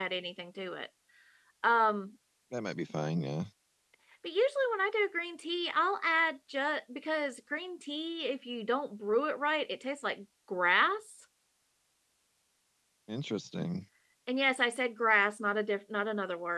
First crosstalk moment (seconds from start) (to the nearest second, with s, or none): none